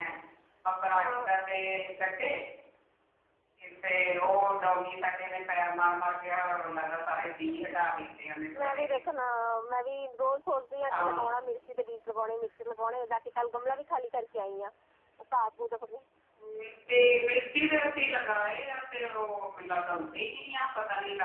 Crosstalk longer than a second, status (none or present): none